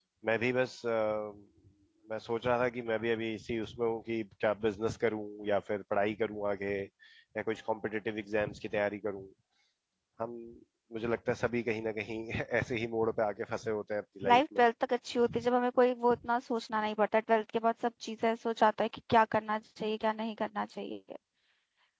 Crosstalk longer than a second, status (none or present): none